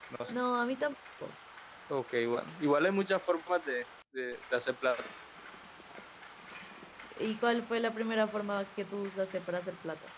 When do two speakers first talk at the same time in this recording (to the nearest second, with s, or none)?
none